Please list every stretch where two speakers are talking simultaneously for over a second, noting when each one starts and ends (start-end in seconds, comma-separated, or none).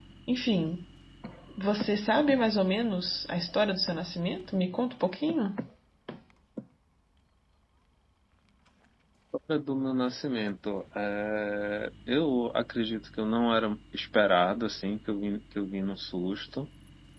none